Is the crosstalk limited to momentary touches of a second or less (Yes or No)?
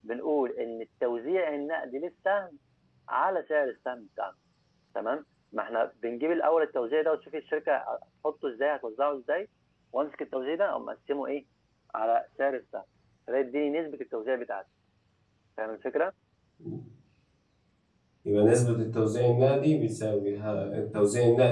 Yes